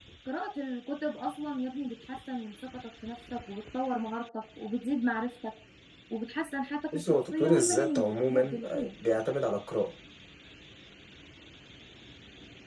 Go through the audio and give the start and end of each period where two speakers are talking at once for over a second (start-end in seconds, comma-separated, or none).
6.9-8.9